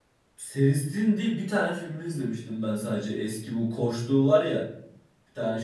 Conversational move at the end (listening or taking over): taking over